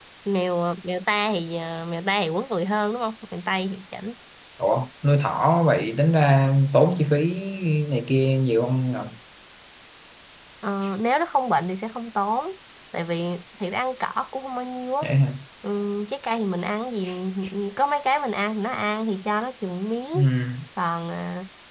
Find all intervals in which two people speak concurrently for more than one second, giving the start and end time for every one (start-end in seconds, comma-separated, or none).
none